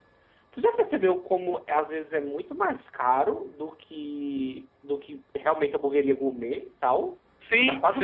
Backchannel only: No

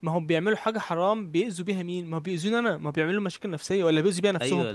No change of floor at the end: No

